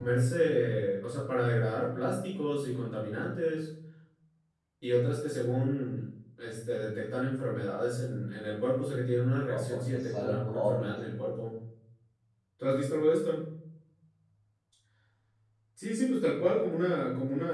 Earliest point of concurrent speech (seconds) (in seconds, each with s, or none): 9.4 s